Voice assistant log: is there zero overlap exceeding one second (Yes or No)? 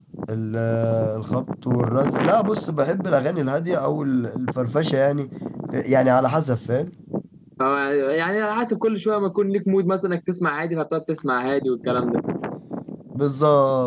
Yes